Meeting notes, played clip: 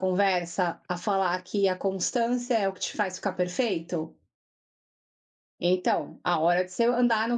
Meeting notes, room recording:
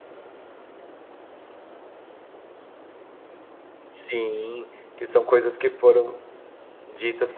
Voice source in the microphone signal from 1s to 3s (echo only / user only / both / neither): neither